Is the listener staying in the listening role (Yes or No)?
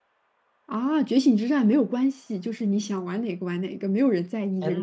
No